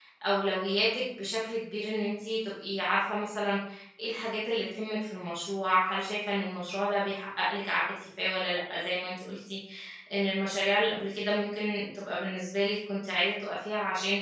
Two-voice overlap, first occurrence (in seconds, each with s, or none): none